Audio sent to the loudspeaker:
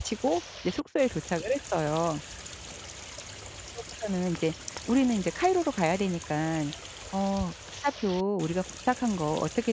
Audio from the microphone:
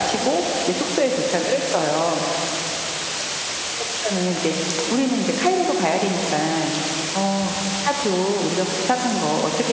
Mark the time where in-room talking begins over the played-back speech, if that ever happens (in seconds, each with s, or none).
none